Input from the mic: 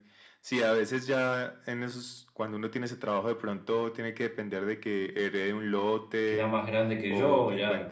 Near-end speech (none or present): present